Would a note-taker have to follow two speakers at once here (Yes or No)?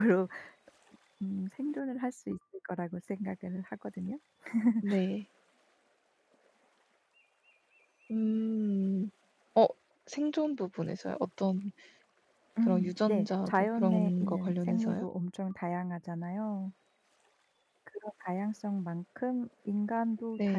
Yes